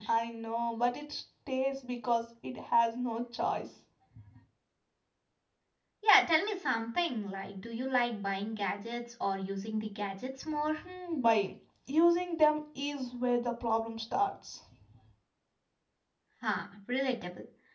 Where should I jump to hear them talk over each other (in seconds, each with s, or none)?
none